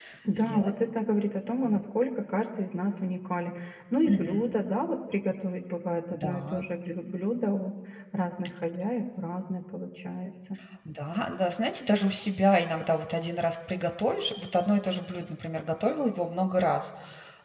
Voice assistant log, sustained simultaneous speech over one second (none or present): none